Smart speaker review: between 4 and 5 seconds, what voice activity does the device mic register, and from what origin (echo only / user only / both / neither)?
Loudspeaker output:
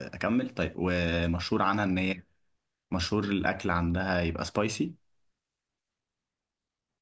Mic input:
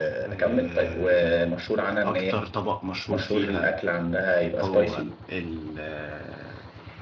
both